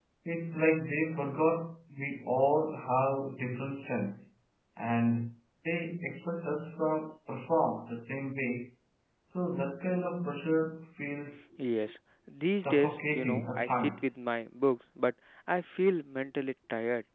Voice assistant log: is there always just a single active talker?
No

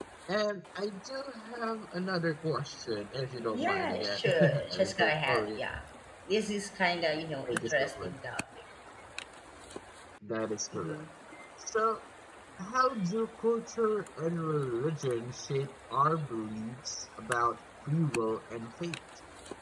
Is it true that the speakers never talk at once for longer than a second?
No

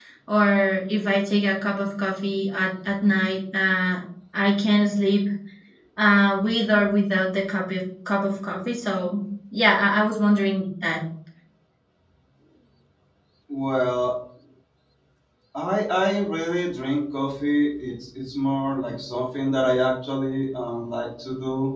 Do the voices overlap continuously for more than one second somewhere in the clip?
No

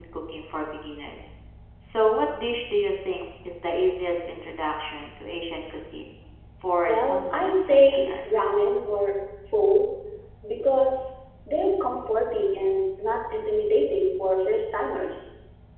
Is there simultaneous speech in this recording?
Yes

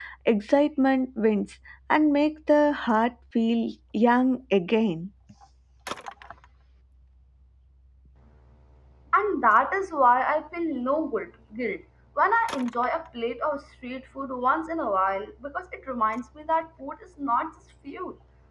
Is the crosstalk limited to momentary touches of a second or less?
Yes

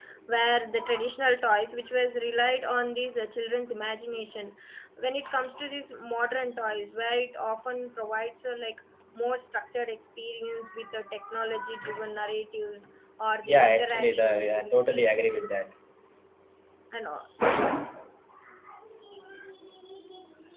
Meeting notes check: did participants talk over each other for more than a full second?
Yes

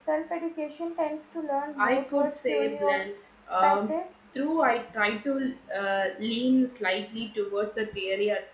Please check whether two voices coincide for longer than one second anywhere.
Yes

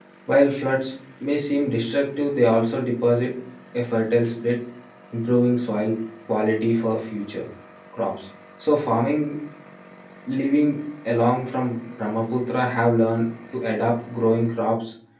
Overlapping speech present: No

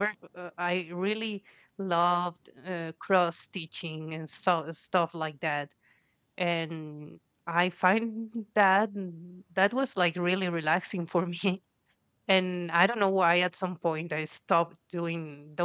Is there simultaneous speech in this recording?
No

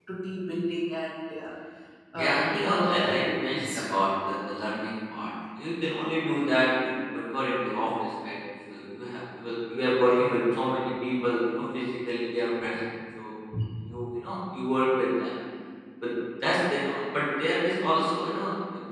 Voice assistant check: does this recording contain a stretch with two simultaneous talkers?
Yes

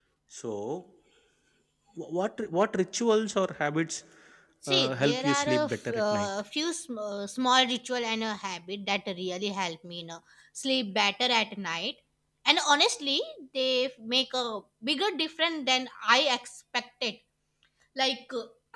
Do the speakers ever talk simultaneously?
Yes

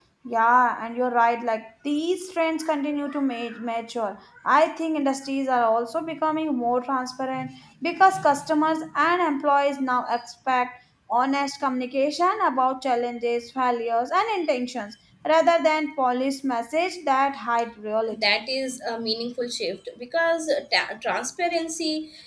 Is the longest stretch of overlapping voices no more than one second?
Yes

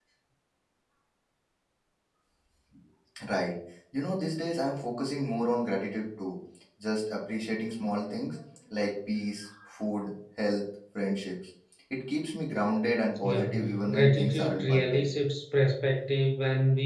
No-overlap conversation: No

